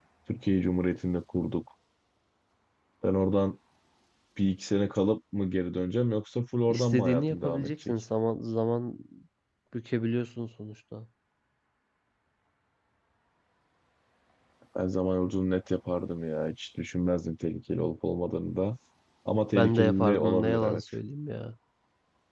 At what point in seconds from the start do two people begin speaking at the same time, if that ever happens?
6.7 s

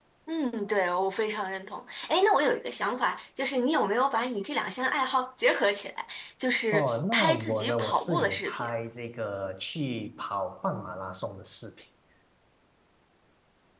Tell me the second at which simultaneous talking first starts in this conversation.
6.7 s

